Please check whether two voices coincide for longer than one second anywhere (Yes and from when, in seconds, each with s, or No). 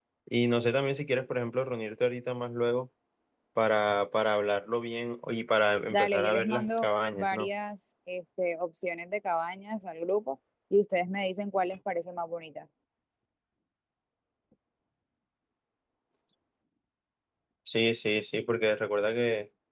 Yes, from 5.9 s